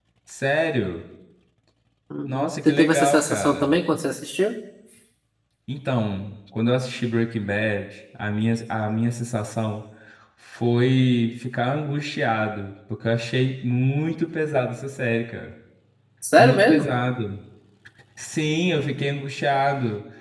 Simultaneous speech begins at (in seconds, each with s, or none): 2.3 s